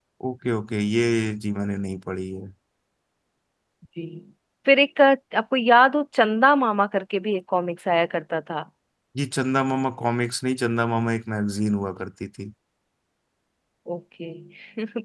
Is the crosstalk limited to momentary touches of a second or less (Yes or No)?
Yes